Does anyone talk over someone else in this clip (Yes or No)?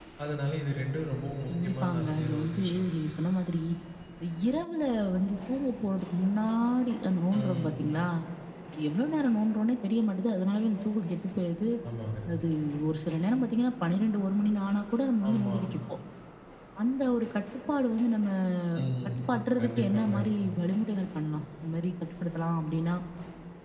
Yes